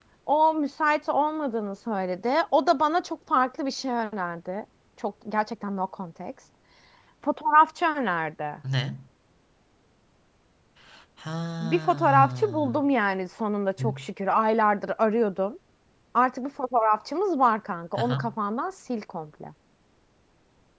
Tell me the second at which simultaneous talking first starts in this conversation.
11.6 s

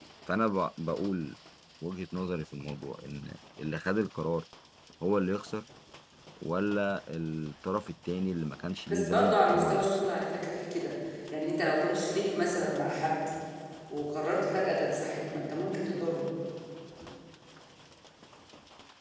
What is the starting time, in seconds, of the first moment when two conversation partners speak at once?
8.9 s

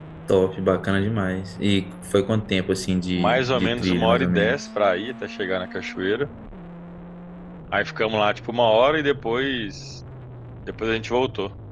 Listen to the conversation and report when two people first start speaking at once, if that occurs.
3.1 s

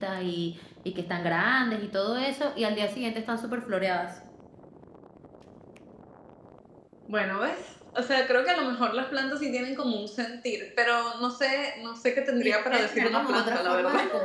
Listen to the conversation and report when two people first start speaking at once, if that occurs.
12.4 s

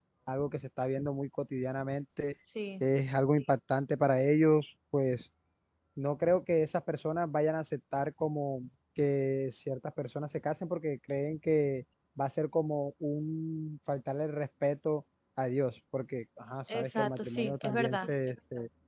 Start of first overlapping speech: 16.7 s

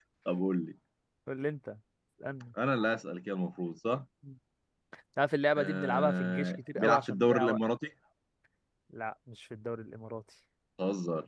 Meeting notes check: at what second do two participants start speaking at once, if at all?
5.6 s

